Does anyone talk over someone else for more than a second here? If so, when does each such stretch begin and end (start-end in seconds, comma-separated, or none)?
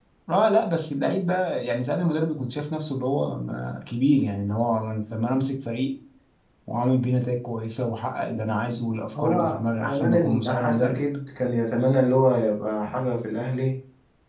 9.2-11.0